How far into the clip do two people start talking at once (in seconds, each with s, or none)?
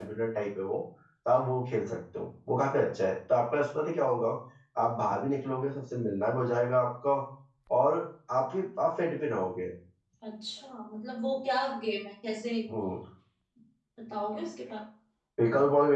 none